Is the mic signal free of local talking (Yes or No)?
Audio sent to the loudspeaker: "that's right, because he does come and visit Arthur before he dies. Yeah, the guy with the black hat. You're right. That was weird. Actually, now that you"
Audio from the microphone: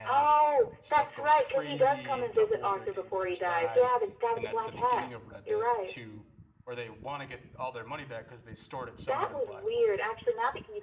No